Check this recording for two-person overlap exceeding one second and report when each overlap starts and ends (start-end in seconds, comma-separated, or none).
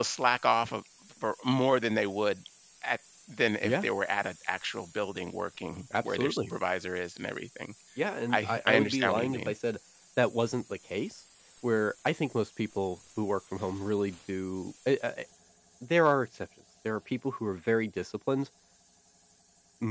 8.3-9.5